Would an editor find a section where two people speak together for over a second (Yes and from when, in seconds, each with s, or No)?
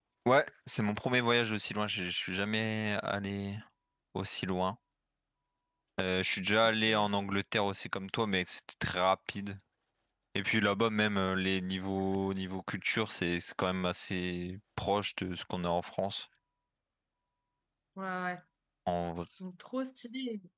No